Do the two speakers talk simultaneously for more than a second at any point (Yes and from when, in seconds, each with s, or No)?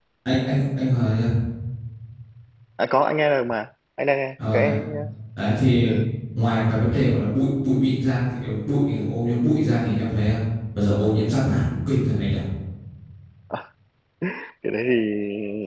No